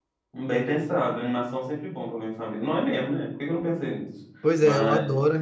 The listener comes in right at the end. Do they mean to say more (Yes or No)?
Yes